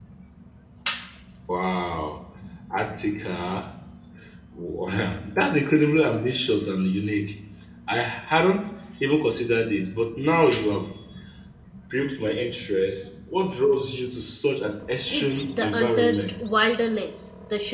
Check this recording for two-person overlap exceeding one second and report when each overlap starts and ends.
15.1-16.4

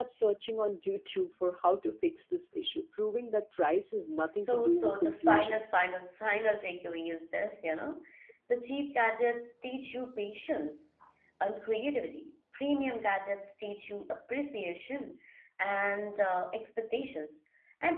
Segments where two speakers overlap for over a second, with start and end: 4.2-5.6

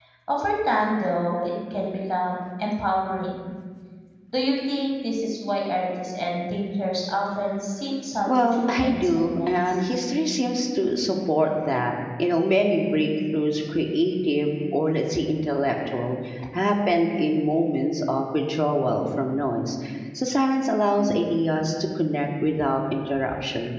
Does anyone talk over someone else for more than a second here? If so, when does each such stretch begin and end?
8.3-9.8

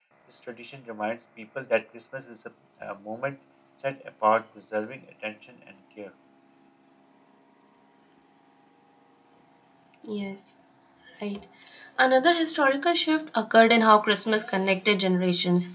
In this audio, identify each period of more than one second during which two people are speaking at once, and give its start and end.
none

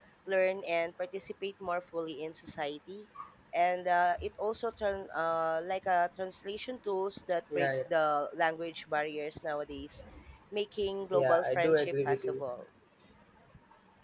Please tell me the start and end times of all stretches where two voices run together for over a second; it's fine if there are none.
11.1-12.4

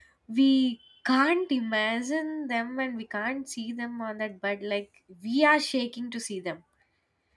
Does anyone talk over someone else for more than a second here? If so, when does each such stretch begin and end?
none

